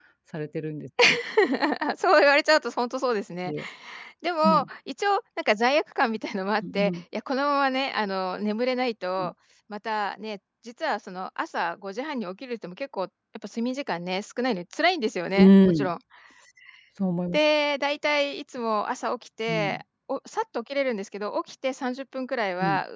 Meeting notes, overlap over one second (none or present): none